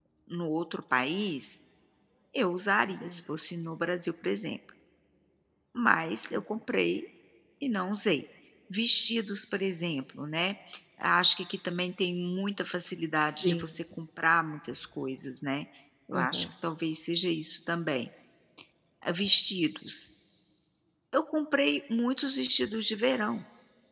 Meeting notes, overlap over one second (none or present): none